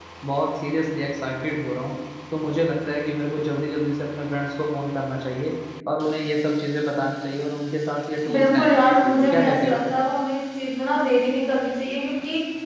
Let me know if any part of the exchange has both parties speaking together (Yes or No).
Yes